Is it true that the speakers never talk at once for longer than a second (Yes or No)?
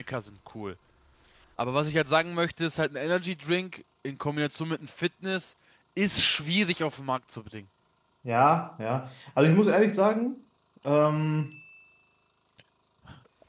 Yes